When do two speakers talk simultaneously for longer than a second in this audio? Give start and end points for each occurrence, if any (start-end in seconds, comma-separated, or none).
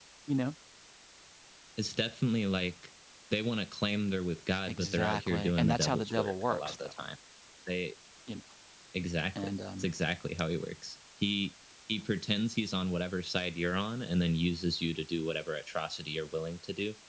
4.7-6.9